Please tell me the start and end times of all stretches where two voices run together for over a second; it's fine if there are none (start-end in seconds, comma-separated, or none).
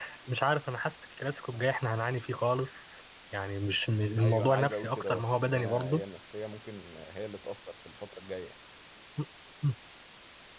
4.2-6.0